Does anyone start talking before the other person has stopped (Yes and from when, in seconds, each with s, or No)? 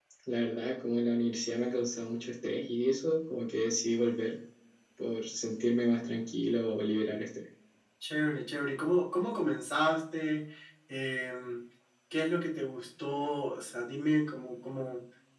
No